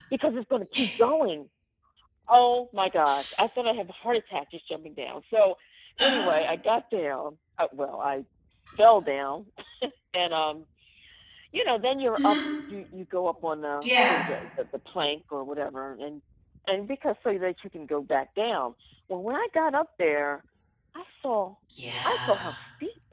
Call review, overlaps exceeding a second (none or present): none